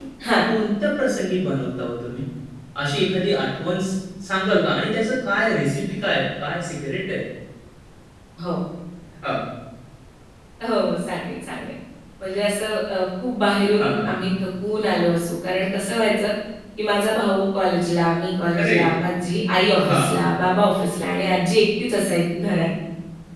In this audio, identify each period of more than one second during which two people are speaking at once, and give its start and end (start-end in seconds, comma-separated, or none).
none